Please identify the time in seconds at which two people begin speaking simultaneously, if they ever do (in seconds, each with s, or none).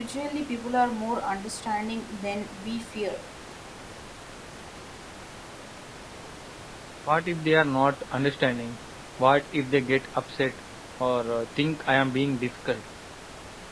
none